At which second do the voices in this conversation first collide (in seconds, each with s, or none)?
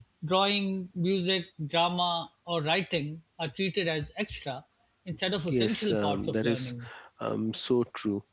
5.5 s